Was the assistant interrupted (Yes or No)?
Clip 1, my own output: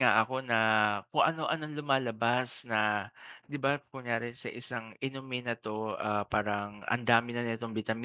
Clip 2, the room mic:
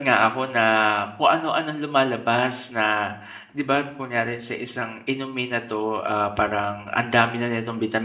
No